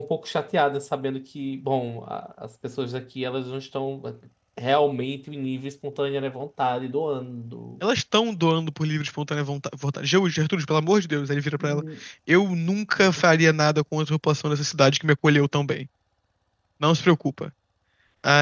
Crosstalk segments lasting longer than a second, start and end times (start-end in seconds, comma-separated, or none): none